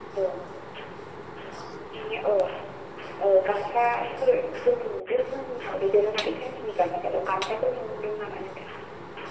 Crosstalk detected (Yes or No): No